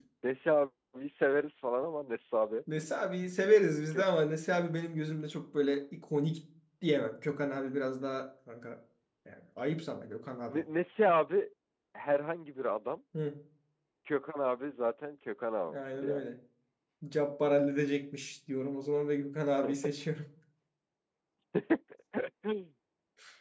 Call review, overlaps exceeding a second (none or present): none